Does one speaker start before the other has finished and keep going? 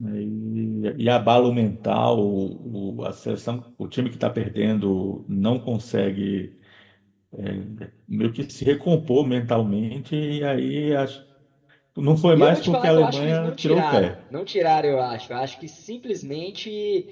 Yes, from 12.4 s

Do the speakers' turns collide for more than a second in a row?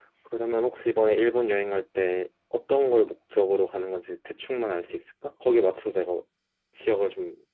No

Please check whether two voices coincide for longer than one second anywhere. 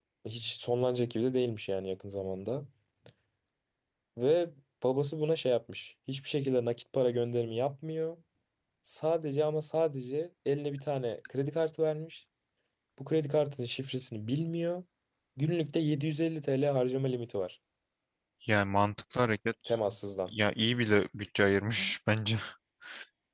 No

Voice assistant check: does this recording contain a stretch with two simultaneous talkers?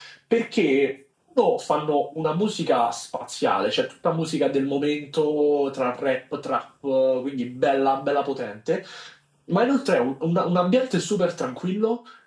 No

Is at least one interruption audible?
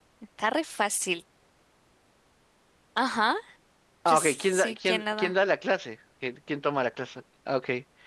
Yes, from 4.1 s

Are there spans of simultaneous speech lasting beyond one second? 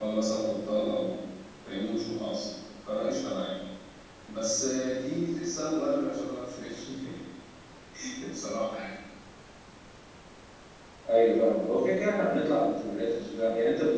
No

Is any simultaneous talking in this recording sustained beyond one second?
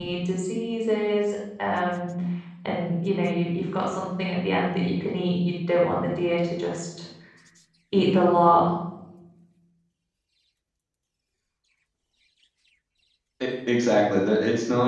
No

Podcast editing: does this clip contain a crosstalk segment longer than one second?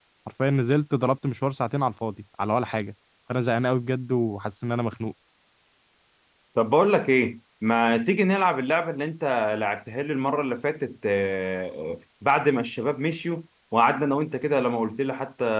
No

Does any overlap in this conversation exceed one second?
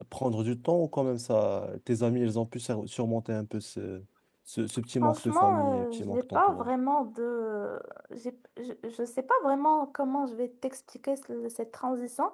Yes, from 5.0 s

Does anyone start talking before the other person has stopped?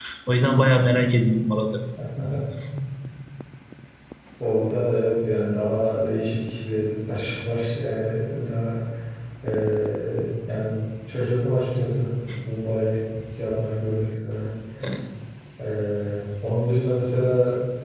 No

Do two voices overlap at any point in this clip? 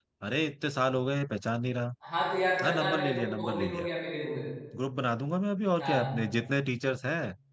Yes, from 2.6 s

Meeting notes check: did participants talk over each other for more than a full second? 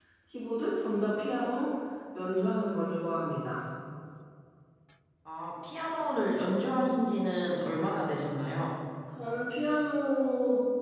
No

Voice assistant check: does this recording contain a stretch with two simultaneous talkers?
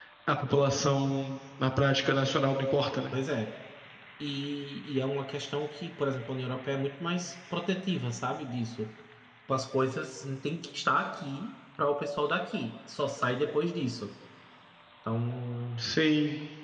No

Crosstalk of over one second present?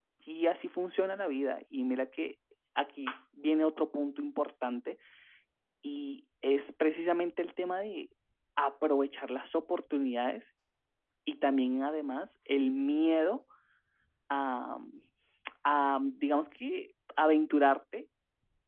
No

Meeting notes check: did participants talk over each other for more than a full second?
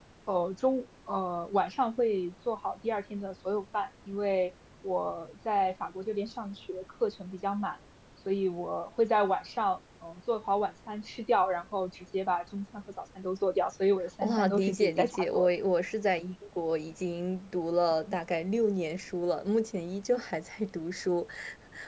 Yes, from 14.2 s

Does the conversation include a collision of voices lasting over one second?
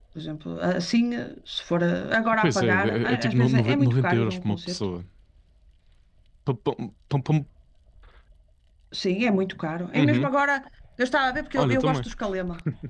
Yes, from 2.4 s

